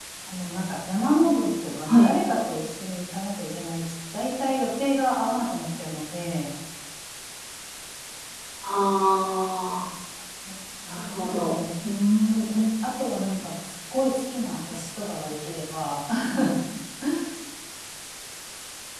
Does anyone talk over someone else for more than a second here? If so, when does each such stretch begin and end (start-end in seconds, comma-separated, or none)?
none